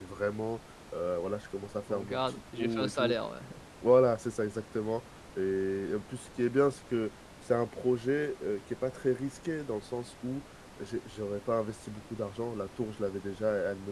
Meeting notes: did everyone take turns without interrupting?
No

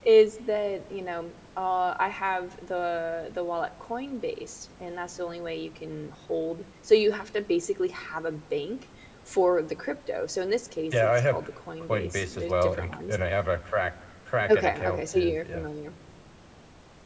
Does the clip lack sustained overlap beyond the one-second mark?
No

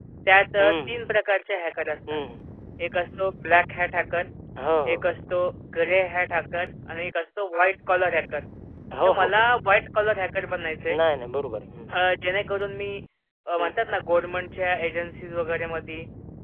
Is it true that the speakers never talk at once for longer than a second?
Yes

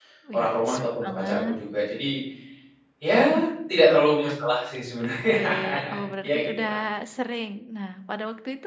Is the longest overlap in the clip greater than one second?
Yes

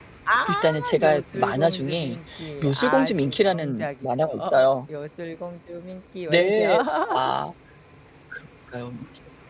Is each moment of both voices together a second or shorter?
No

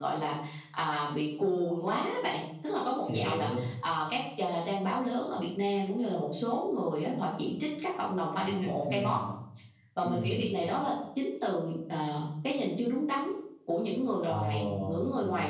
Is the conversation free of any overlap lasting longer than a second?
No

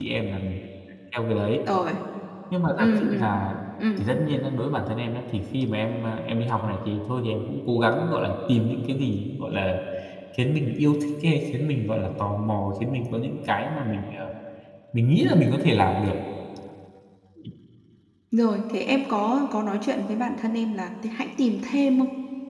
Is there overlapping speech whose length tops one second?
No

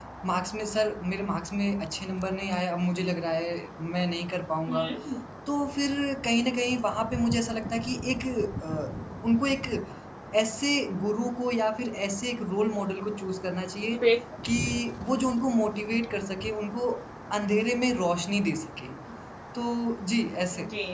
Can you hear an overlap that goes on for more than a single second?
No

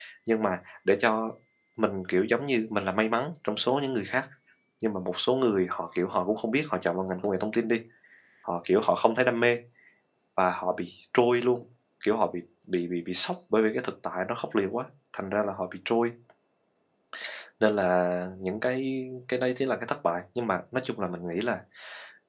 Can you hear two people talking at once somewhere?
No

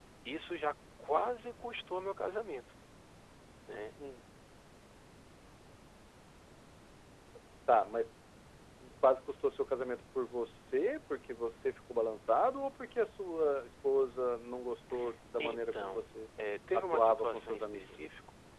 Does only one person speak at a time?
No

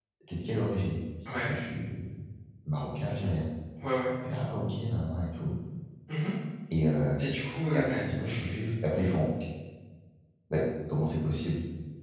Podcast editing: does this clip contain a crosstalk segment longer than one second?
No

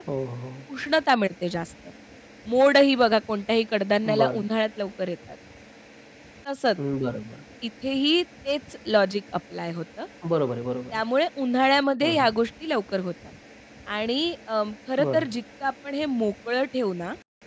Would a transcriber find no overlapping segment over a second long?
Yes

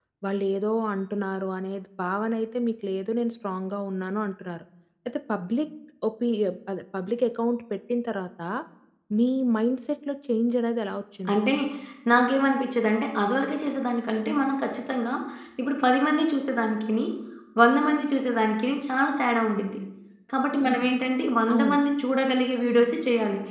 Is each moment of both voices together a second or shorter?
Yes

